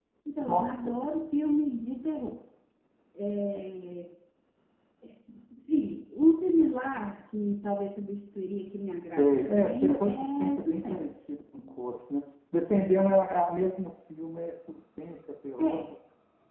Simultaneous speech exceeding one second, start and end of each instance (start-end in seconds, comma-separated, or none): 9.2-11.2